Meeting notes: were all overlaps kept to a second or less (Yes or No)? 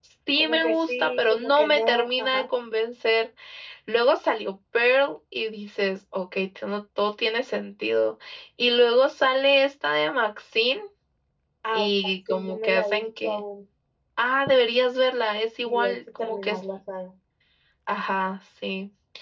No